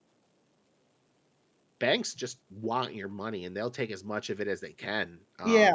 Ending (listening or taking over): taking over